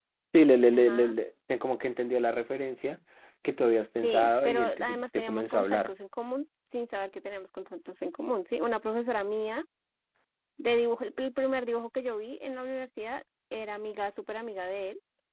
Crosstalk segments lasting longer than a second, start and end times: 4.0-5.9

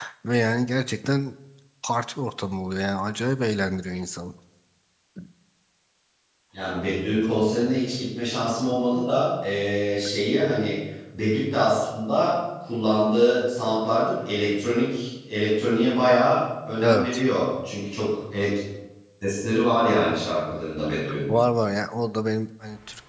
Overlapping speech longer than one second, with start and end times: none

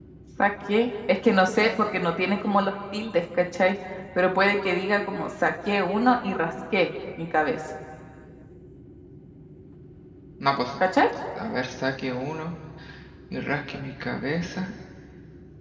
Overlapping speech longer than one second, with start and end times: none

